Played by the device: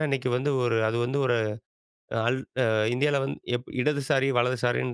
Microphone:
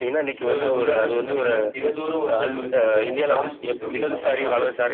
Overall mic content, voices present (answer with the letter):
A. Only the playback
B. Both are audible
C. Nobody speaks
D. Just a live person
B